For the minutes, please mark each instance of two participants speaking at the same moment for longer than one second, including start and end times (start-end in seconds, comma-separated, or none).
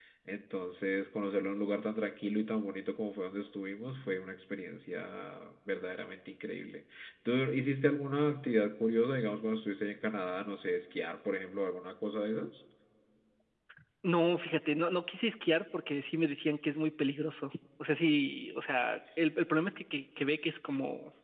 none